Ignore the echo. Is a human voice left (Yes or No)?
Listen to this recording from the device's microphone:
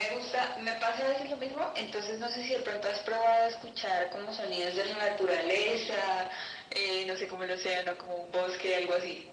No